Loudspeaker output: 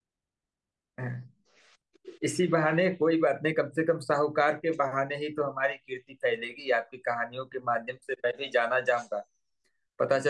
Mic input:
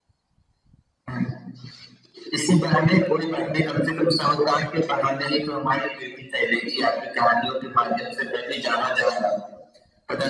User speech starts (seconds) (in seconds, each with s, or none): none